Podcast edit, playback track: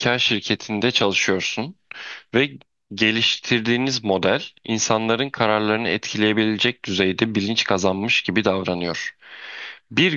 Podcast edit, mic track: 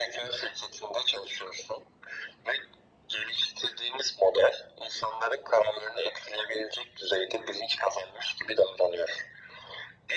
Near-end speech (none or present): none